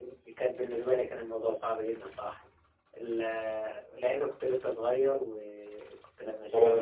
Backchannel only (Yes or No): No